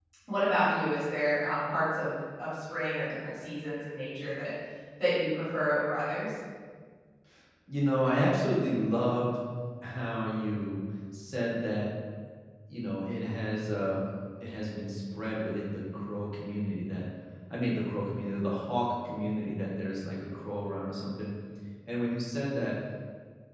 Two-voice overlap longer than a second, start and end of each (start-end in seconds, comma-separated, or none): none